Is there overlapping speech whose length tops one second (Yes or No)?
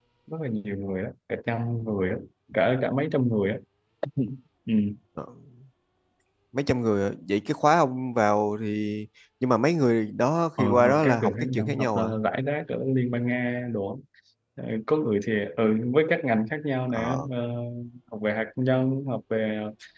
Yes